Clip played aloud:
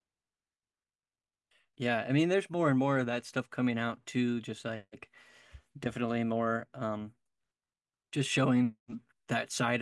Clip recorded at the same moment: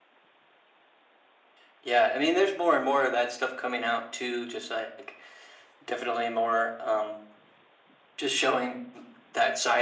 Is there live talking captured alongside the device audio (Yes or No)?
No